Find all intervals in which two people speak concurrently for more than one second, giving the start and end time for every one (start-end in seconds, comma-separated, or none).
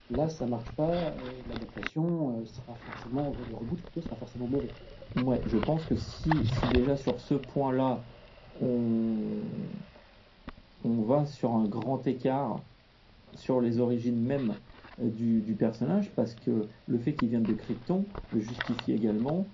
none